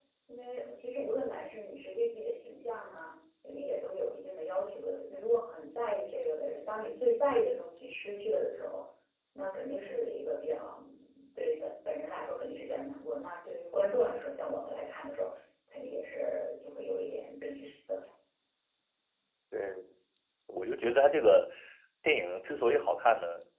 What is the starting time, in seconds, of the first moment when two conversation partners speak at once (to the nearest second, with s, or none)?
none